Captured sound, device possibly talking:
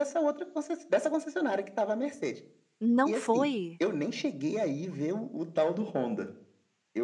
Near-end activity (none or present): present